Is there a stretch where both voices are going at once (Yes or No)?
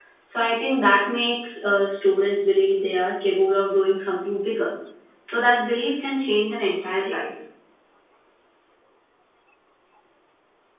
No